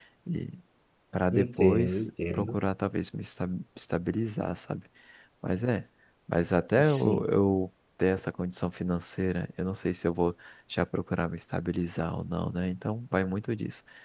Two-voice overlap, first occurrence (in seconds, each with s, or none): 1.3 s